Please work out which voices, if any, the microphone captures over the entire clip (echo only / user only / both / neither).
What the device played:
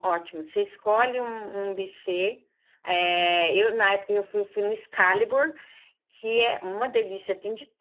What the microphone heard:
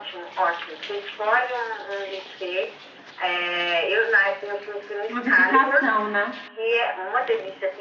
both